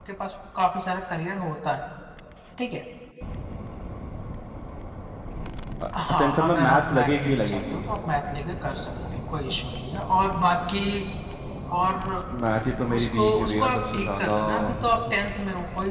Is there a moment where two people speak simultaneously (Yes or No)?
Yes